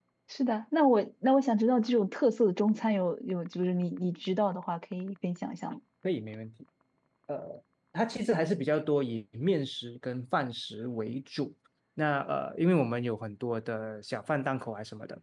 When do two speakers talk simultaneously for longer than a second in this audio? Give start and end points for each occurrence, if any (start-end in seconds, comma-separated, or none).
none